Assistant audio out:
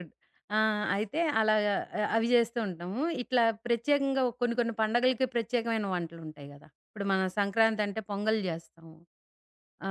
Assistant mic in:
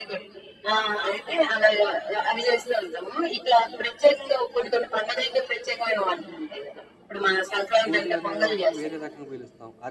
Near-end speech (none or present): present